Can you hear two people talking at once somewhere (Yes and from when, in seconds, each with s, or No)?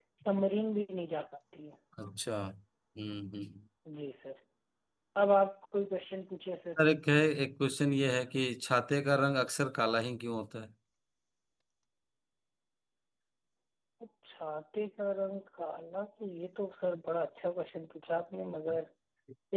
No